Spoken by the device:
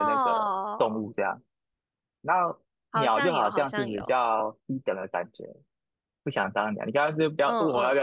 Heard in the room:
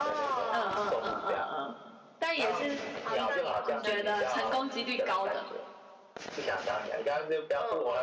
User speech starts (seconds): 0.5 s

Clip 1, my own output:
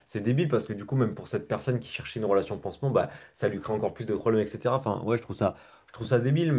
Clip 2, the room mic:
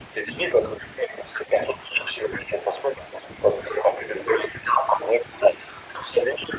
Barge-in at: none

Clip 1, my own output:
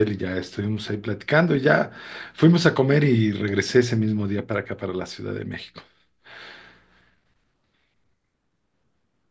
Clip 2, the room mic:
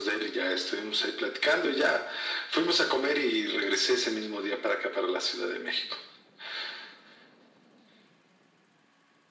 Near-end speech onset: none

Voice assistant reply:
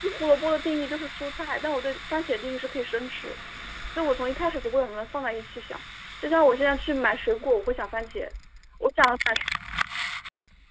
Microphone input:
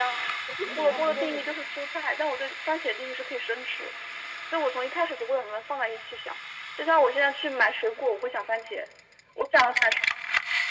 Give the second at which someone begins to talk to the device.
0.6 s

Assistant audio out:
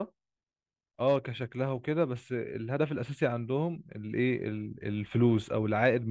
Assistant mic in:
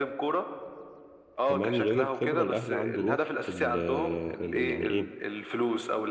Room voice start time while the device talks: 1.4 s

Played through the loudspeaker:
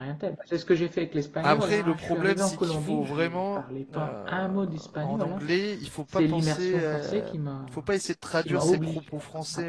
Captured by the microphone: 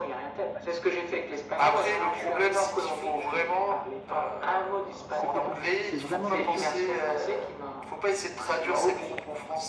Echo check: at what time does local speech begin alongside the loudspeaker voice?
5.1 s

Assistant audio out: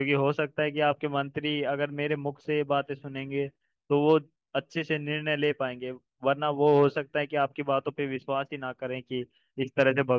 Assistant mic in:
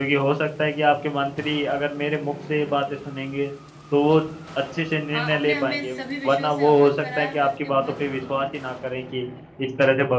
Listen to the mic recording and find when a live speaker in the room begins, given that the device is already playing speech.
5.2 s

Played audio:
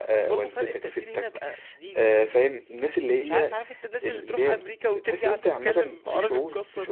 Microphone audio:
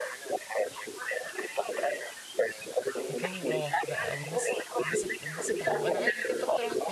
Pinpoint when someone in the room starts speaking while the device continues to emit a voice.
3.1 s

